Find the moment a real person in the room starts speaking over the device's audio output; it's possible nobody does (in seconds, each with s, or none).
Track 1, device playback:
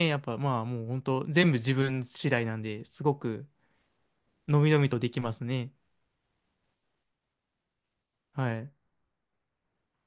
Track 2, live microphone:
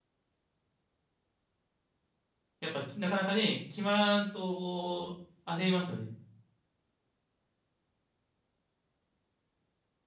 2.6 s